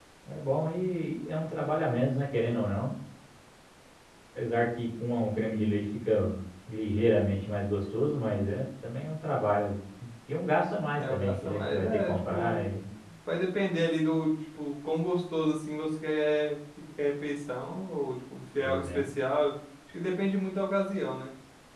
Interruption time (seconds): 10.9 s

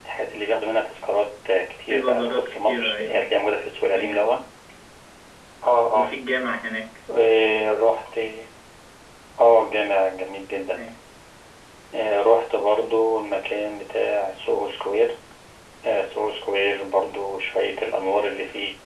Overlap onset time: 1.9 s

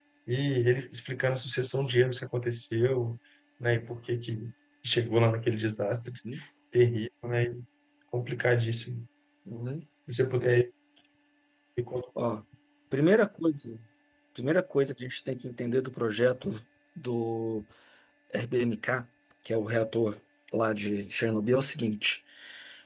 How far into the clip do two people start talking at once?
none

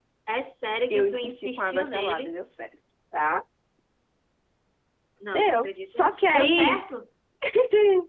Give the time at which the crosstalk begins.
0.9 s

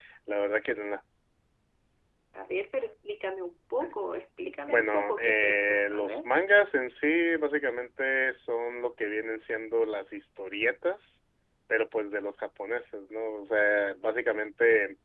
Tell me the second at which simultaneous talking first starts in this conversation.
4.7 s

